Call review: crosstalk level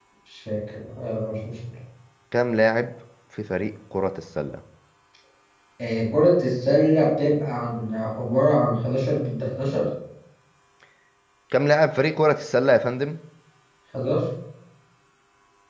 none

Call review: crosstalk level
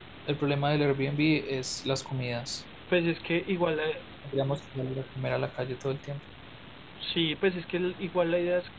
none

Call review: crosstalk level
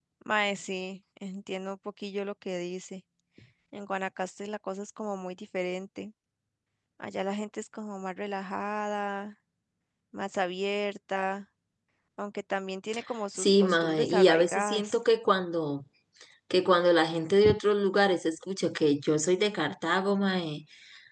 present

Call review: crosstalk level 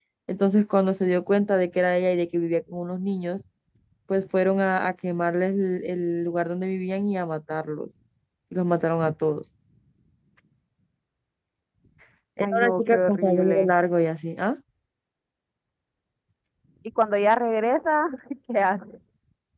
present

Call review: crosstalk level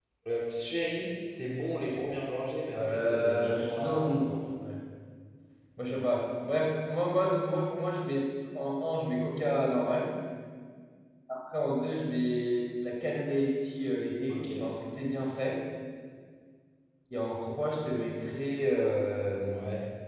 present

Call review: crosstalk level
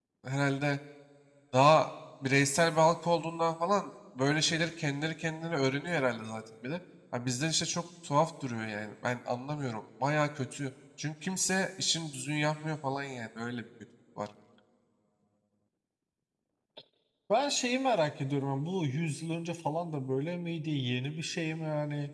none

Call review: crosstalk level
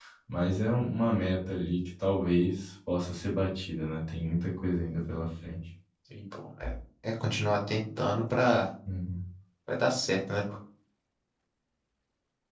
none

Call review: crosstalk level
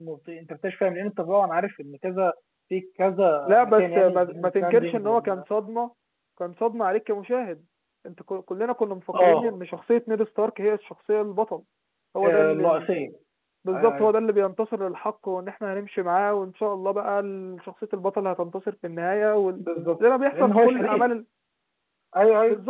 present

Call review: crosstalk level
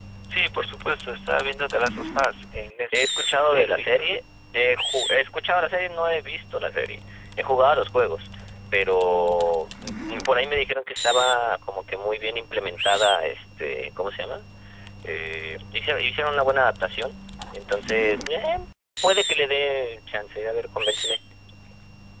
present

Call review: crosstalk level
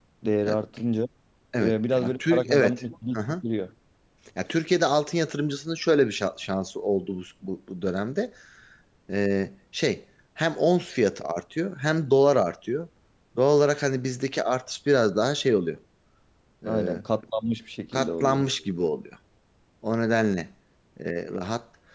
present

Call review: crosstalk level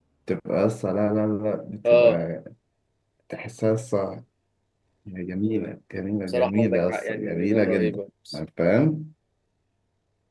present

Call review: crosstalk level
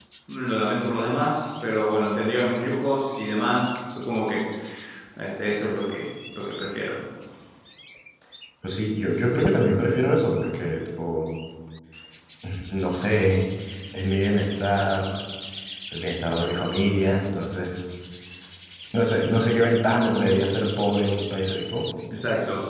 none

